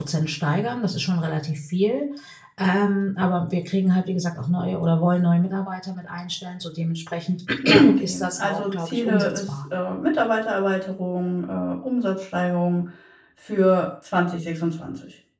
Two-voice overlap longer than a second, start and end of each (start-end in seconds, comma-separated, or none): 7.7-9.5